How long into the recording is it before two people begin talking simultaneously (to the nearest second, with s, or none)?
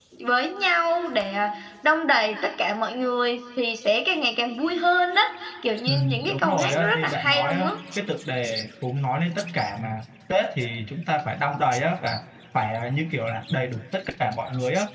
6 s